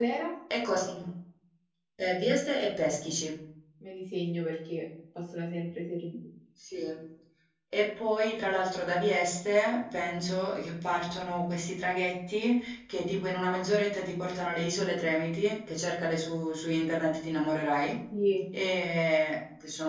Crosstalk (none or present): none